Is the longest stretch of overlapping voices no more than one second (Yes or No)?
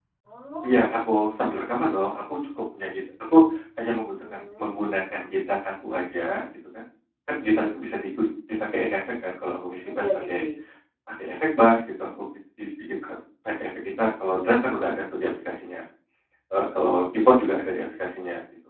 Yes